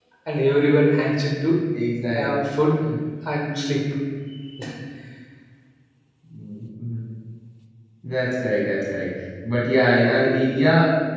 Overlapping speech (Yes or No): No